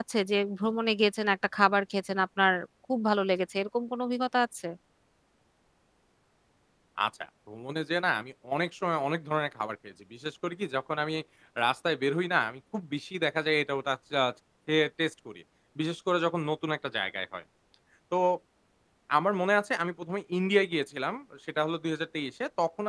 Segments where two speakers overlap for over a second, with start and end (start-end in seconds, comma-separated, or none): none